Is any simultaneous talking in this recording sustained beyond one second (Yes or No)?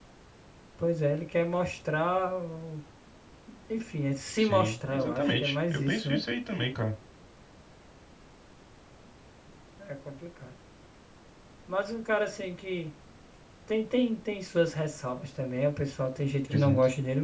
Yes